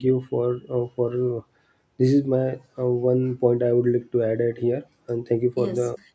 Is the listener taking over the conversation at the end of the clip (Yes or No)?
Yes